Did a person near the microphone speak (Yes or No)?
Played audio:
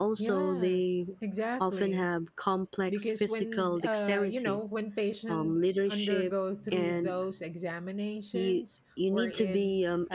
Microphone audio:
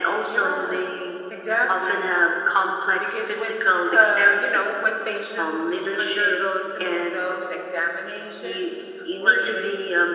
No